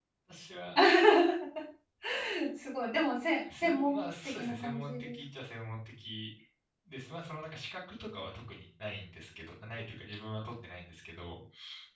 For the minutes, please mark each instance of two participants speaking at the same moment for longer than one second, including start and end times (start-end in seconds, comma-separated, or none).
3.6-5.2